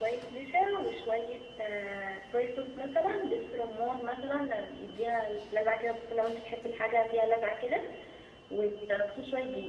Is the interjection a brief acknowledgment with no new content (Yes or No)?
Yes